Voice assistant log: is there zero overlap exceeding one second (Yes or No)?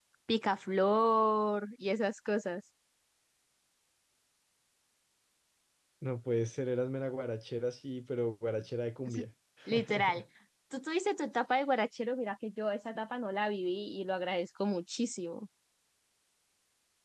Yes